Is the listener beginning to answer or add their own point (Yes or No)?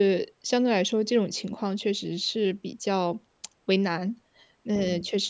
No